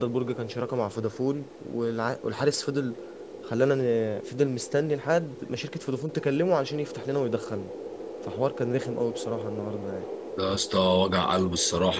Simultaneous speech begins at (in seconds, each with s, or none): none